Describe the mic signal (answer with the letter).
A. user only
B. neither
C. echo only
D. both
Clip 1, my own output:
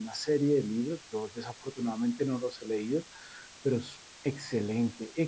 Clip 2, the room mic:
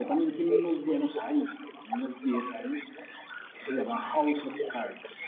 D